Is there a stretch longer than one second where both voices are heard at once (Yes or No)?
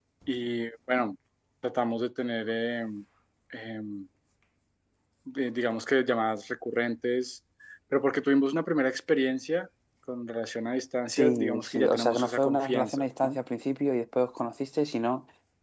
Yes